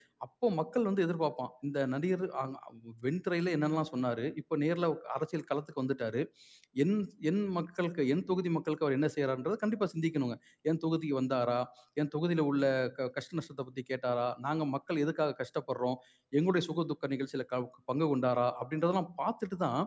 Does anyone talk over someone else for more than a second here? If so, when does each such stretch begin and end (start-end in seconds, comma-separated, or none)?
none